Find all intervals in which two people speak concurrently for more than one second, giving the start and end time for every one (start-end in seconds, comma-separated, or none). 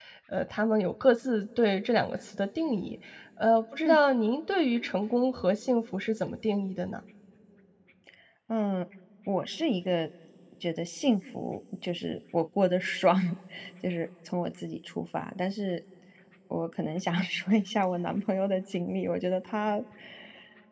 none